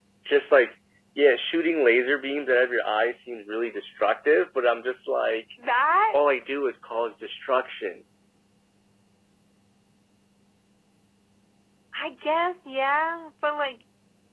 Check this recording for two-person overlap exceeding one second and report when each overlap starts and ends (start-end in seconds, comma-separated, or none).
none